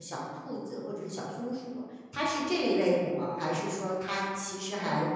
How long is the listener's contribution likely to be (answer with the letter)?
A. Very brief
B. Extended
A